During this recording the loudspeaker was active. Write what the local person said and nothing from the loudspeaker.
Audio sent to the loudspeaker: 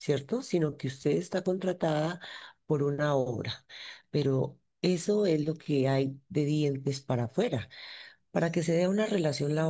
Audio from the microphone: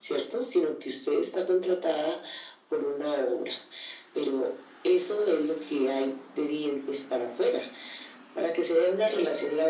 none

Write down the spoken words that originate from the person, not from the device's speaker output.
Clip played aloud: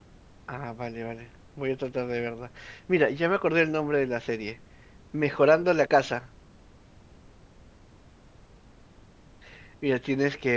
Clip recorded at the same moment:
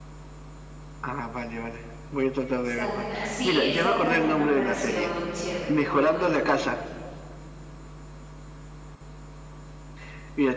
Sabrina. Sí, esa también me pareció chévere, muy buena.

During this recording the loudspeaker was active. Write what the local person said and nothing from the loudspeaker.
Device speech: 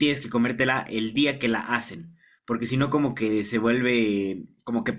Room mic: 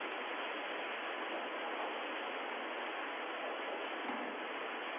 none

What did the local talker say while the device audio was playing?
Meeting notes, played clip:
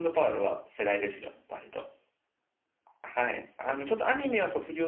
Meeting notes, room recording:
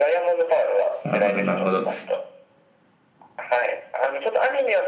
なるほど、なるほど。

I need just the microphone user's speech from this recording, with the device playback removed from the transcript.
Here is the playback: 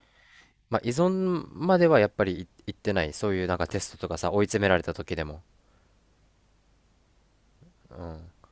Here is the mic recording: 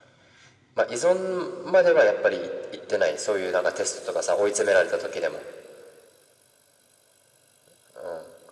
none

